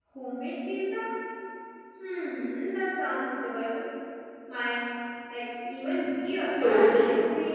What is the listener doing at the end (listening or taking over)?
taking over